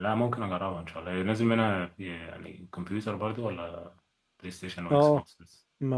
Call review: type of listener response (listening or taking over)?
taking over